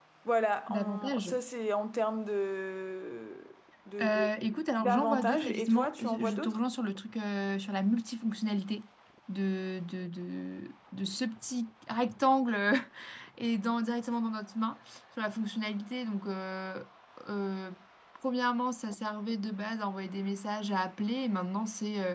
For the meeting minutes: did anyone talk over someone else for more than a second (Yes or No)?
Yes